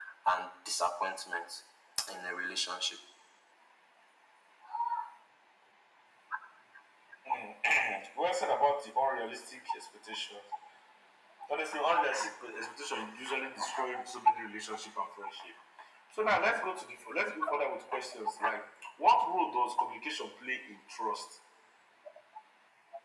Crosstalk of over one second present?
No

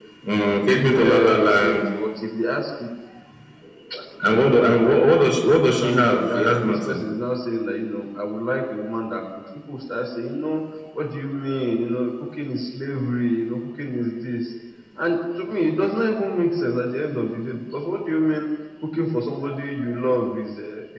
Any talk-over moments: Yes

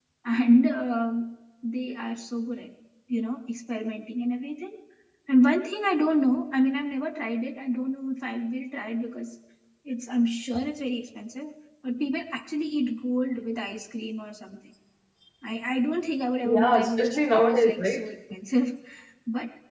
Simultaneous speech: Yes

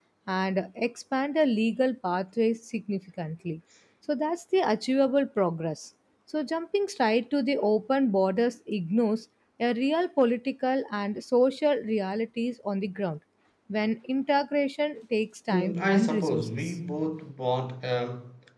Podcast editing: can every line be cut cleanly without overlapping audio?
No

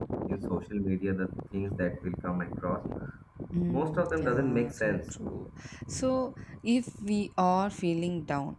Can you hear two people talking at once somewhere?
Yes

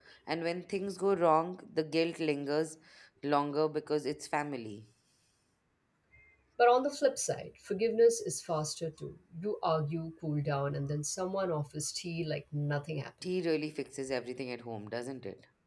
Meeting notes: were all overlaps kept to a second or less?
Yes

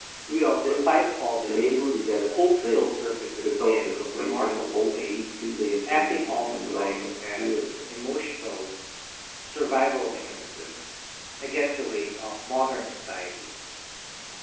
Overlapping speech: Yes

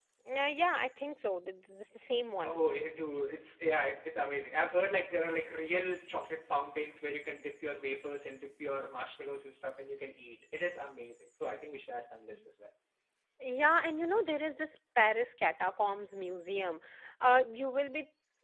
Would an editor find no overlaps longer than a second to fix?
Yes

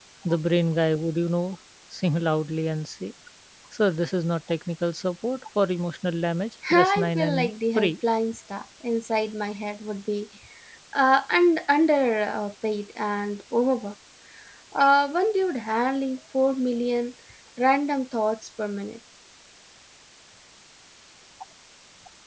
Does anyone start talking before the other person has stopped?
Yes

